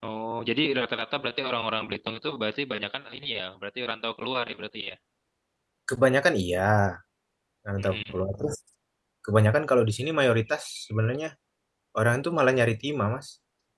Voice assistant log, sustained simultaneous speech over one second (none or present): none